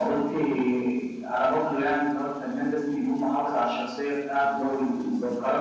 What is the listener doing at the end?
listening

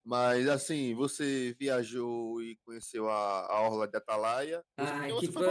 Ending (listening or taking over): taking over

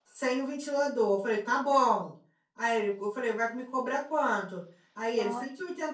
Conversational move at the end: listening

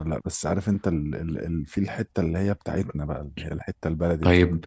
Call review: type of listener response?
taking over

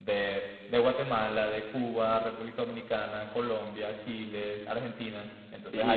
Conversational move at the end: listening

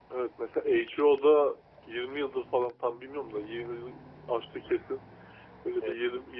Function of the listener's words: listening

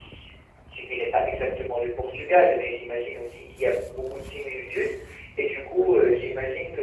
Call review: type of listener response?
listening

